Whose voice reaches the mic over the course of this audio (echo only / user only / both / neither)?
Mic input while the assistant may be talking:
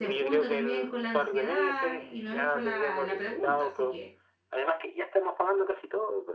both